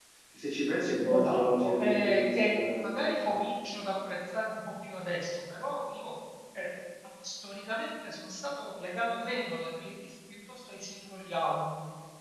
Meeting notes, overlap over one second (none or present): present